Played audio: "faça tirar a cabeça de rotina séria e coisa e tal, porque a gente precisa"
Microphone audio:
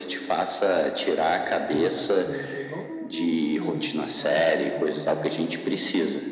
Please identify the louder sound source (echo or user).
echo